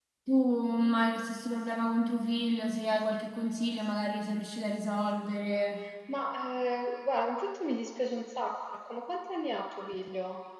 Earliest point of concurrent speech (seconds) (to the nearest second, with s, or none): none